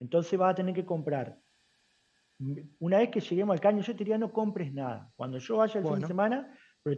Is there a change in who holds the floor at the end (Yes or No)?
No